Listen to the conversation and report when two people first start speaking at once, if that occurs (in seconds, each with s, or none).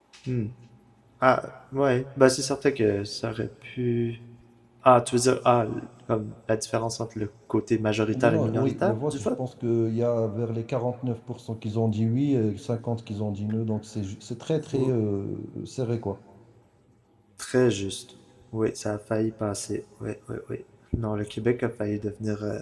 8.1 s